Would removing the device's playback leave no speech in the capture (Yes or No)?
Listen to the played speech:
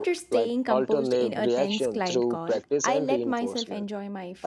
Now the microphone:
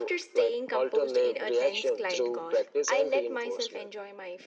Yes